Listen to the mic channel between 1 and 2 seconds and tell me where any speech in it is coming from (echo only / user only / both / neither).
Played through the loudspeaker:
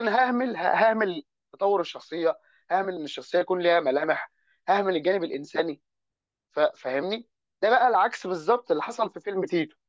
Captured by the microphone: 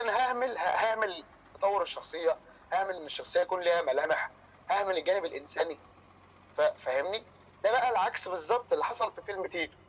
echo only